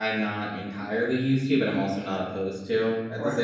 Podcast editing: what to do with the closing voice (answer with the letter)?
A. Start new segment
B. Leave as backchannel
A